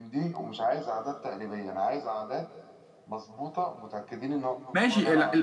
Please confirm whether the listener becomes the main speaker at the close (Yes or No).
Yes